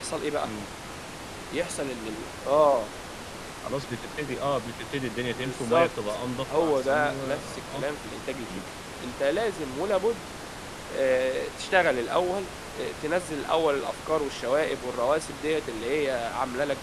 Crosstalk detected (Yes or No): Yes